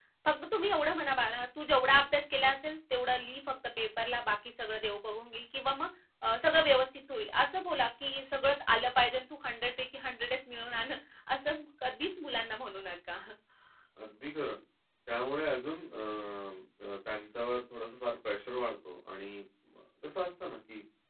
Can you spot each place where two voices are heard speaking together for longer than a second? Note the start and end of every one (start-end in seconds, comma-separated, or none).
none